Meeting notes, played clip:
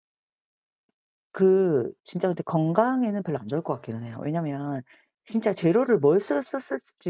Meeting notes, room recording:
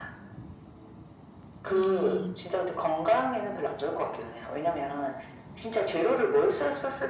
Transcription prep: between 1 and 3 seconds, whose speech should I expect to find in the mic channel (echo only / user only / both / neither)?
both